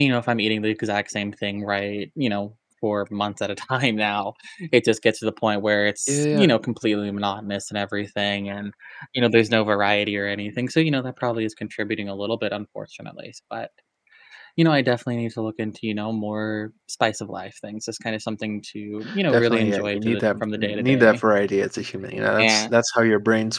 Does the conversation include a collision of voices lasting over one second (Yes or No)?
Yes